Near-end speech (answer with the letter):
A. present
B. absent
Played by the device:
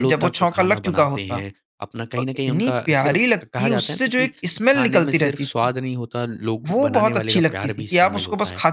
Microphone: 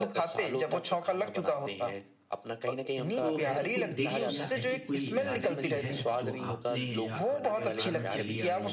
A